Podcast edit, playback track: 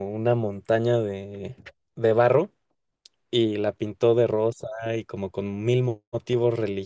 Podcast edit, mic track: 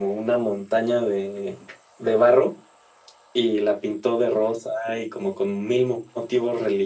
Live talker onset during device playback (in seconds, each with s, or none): none